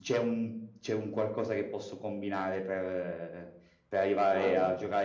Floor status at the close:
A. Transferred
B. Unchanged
B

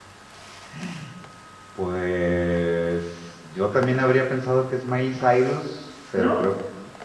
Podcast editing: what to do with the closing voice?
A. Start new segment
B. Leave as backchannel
B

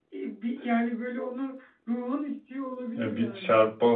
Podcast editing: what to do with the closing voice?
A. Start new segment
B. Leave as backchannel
A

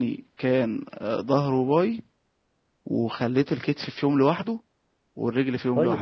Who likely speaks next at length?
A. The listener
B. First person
A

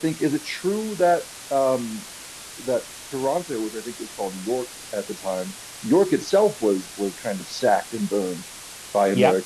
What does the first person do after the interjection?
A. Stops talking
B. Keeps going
A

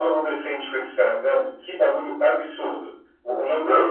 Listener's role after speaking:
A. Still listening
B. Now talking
A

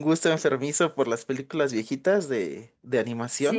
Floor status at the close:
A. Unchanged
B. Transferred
B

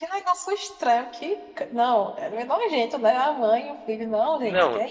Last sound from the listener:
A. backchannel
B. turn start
B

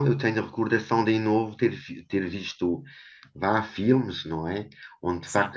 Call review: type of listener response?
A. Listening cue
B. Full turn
A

